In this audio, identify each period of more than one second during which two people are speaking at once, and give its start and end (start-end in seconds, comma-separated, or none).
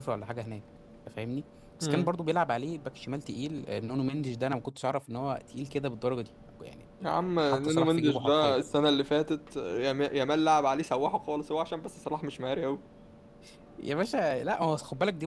7.0-8.6